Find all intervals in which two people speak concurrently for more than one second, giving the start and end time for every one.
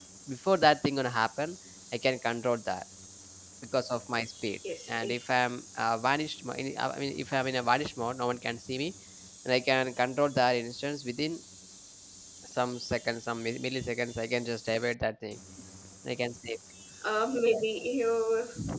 none

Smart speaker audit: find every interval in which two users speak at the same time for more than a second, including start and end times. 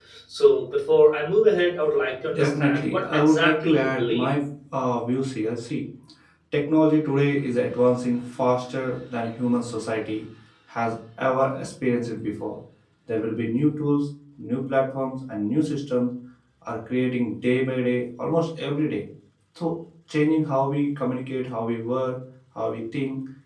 2.3-4.3

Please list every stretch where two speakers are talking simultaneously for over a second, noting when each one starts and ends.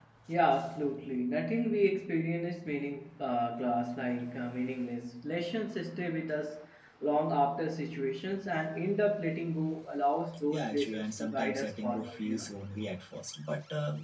10.5-12.5

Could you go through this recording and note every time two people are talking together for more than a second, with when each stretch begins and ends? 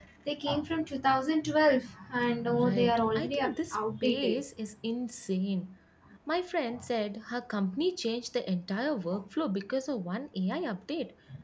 2.6-4.4

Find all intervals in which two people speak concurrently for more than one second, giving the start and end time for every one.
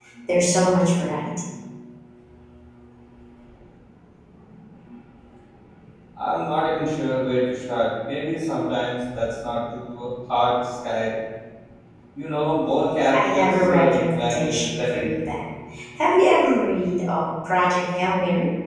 13.1-15.1

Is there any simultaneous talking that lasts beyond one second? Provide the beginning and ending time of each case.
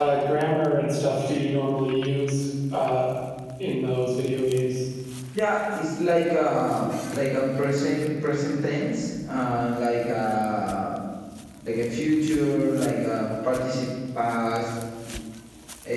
none

